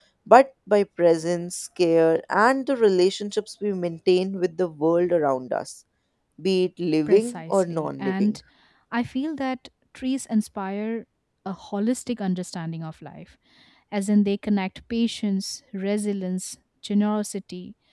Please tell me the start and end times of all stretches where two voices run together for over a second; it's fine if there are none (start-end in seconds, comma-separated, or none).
7.1-8.3